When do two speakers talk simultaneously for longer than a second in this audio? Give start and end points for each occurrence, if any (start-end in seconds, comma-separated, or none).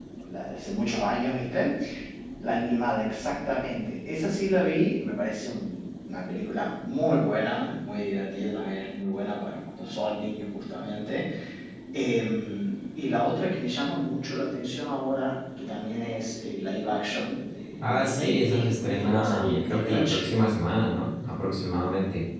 17.8-20.2